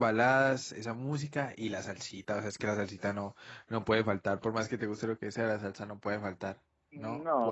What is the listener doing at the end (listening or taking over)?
taking over